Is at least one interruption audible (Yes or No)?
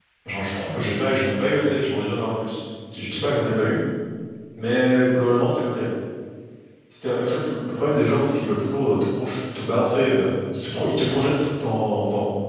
No